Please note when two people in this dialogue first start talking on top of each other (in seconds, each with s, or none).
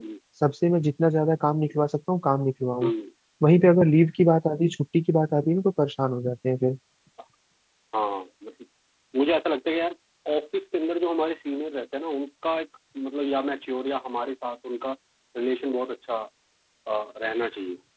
none